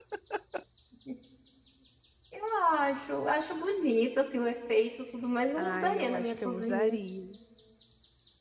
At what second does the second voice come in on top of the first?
5.6 s

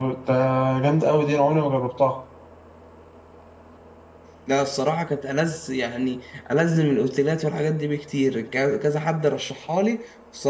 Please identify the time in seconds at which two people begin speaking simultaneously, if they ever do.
none

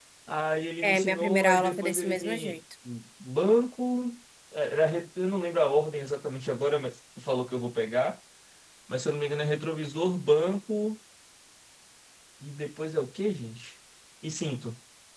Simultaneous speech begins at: 0.8 s

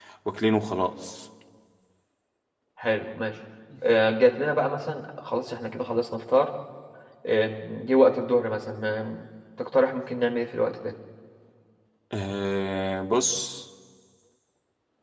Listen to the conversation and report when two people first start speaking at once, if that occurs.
none

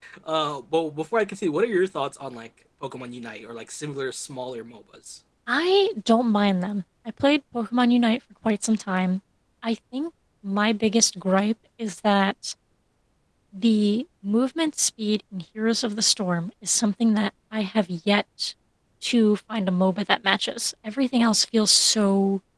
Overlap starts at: none

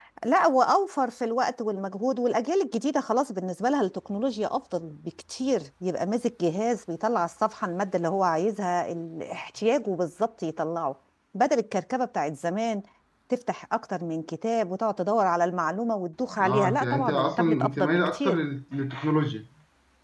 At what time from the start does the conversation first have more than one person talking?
16.3 s

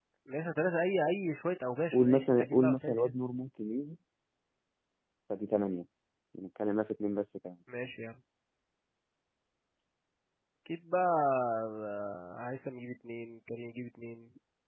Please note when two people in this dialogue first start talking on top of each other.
1.9 s

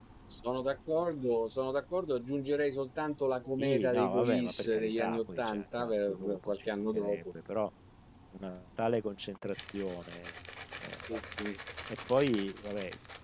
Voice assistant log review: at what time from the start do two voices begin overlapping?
3.6 s

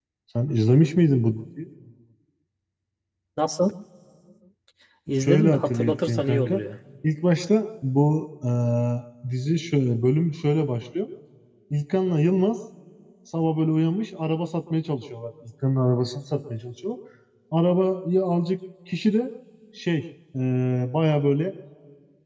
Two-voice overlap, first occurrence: 5.2 s

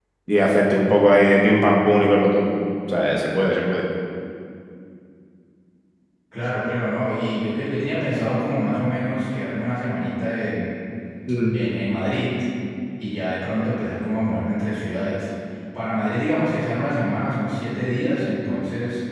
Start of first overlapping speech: none

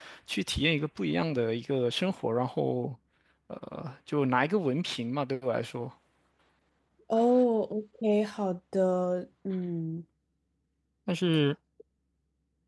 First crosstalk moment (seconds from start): none

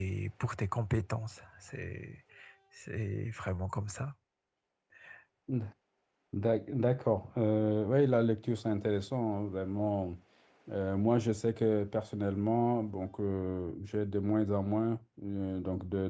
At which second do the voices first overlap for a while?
none

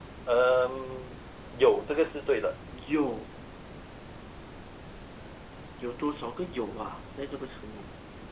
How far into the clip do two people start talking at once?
none

